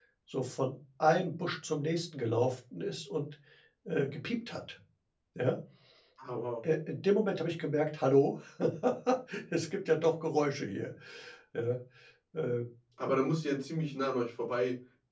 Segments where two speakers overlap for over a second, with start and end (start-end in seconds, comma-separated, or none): none